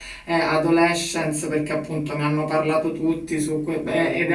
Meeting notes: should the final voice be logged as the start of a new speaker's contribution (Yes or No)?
No